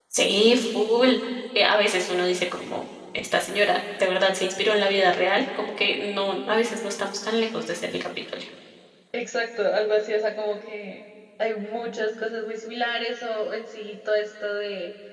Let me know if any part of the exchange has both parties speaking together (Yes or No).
No